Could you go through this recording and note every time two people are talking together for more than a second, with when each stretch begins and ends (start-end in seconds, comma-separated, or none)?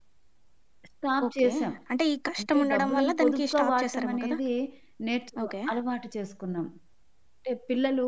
2.4-4.4